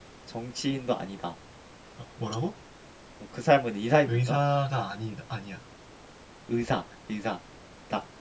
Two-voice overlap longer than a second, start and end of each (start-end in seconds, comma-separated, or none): none